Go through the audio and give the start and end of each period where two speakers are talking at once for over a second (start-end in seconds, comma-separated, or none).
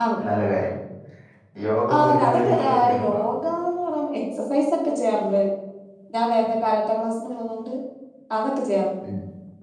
2.0-3.2